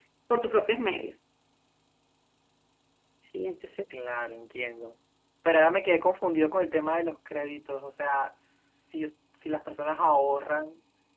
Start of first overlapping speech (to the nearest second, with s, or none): none